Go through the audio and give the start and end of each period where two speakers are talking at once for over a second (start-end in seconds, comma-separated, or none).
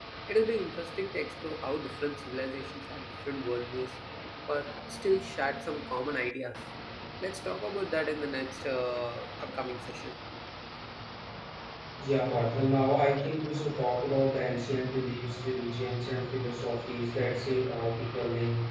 none